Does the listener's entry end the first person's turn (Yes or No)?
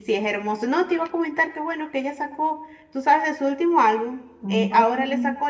No